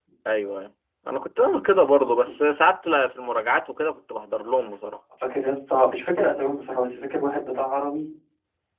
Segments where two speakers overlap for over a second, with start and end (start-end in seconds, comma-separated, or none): none